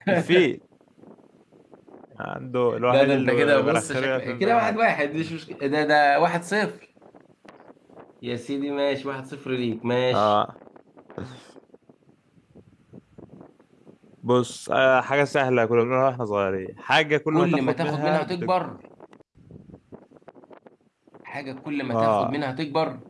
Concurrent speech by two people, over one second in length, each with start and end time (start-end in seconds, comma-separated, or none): 2.9-4.8, 17.3-18.6